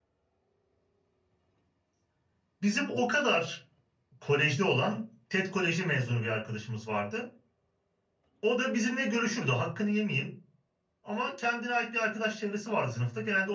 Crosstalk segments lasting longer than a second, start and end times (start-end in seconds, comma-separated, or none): none